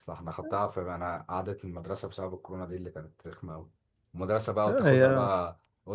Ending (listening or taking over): listening